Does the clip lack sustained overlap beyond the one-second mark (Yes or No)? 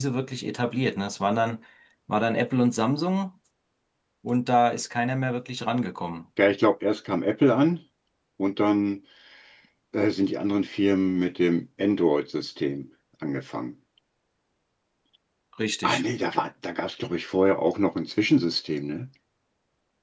Yes